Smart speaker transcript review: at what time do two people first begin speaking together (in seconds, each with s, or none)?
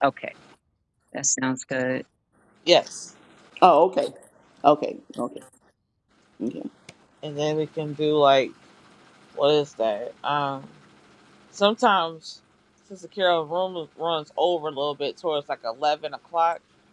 none